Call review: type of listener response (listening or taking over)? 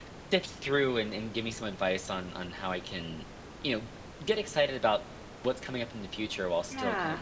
listening